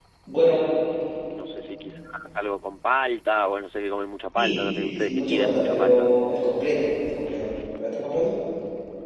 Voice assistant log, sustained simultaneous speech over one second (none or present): present